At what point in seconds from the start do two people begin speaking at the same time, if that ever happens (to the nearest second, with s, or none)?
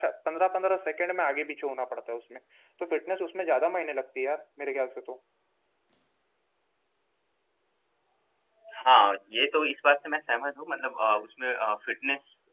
none